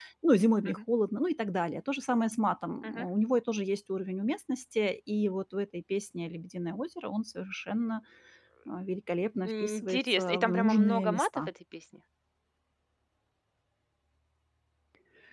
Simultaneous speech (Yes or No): Yes